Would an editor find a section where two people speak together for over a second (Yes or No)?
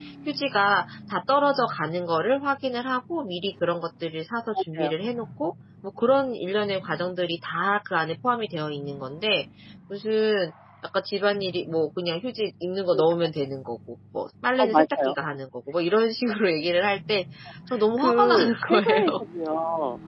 Yes